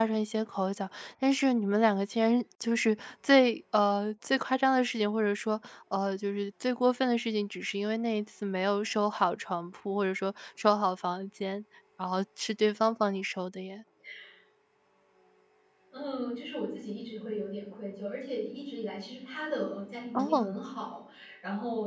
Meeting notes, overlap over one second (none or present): none